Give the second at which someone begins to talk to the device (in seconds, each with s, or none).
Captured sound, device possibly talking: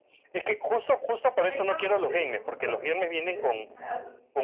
1.5 s